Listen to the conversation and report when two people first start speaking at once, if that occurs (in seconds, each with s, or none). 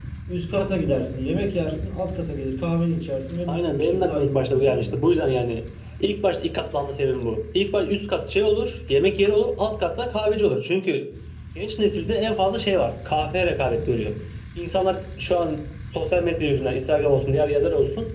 3.5 s